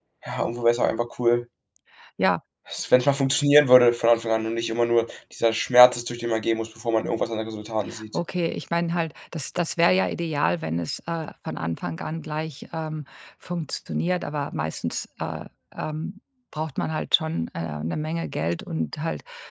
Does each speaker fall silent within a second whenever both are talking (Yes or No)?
Yes